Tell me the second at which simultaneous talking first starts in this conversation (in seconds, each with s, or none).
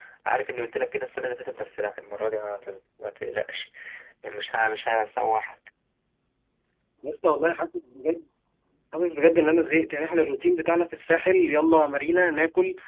none